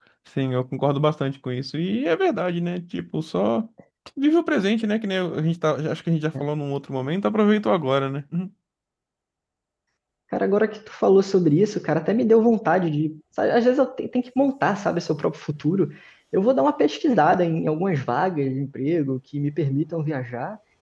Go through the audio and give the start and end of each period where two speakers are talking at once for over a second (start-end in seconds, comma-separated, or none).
none